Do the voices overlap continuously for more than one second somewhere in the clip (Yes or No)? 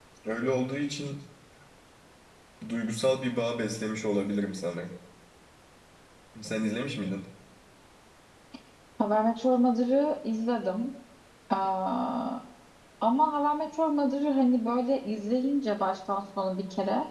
No